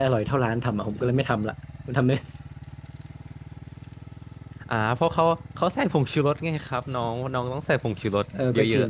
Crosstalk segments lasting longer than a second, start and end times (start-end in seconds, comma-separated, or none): none